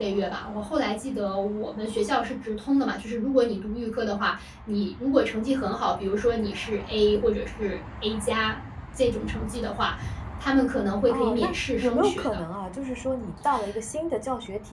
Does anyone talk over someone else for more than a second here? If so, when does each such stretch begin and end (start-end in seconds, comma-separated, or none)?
11.1-12.4